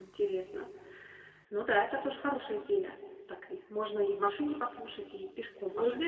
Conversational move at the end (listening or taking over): taking over